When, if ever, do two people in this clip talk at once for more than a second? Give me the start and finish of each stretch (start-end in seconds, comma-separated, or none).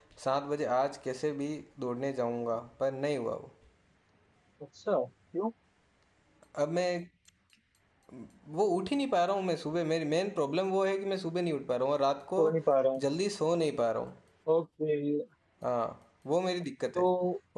none